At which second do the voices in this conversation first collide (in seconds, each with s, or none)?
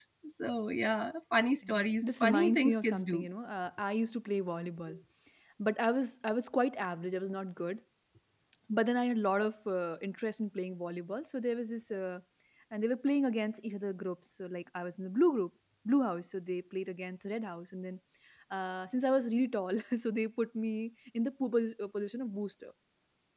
1.6 s